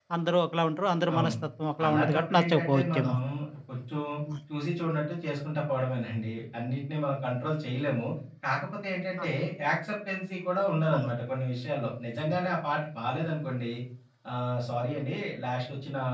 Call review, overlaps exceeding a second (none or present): present